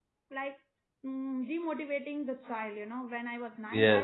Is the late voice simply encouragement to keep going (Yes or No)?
Yes